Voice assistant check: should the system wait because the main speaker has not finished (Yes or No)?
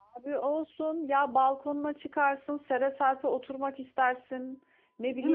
Yes